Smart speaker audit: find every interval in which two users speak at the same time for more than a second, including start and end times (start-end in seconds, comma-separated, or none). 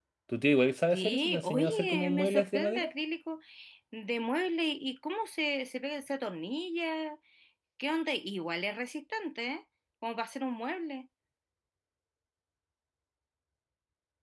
0.9-2.9